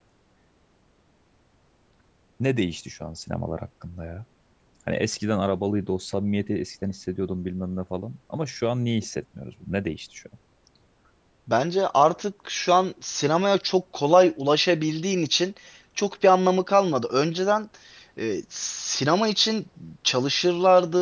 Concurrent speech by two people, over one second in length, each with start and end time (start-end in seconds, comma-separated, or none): none